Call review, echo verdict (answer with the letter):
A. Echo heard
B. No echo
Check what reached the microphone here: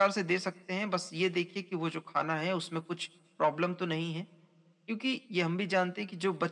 A